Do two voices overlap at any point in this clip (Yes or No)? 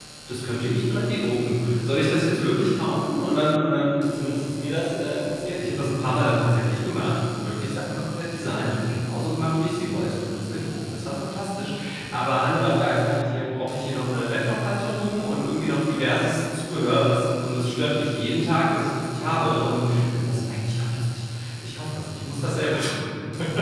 No